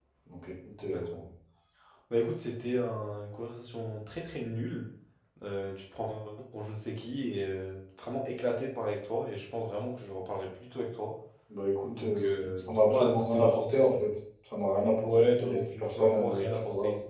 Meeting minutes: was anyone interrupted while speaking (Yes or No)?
Yes